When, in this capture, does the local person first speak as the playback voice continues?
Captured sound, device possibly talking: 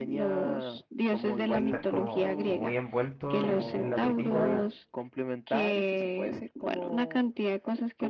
1.5 s

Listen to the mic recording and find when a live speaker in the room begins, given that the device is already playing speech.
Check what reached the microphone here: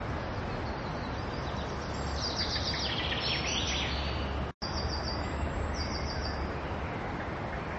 none

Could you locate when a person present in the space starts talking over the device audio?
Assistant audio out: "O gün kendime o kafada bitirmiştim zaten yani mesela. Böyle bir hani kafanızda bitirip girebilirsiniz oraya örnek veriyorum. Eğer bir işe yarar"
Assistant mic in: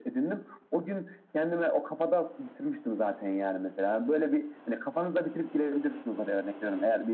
none

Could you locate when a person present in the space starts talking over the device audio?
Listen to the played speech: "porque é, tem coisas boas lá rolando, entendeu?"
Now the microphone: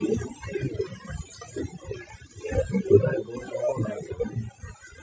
none

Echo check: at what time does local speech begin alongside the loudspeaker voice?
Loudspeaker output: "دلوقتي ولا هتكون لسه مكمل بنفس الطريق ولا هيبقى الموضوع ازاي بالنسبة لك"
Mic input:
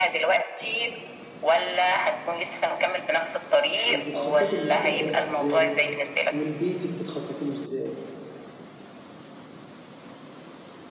3.9 s

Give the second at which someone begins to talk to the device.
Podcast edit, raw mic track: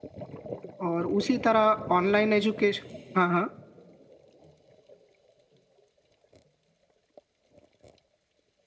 0.9 s

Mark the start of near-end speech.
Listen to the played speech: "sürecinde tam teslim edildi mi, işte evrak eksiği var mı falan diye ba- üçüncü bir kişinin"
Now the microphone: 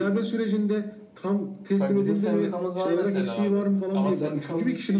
1.8 s

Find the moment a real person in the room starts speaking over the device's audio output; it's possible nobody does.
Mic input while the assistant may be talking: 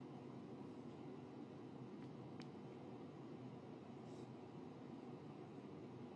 none

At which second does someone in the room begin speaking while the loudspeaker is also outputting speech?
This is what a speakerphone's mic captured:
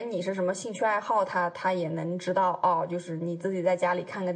none

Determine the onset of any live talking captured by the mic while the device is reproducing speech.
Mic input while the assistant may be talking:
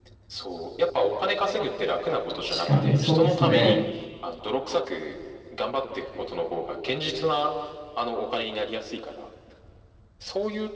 2.5 s

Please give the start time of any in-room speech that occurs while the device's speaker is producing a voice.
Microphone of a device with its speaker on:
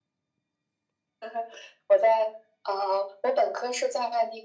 none

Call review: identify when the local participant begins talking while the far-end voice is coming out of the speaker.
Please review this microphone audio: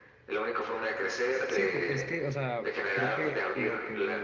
1.5 s

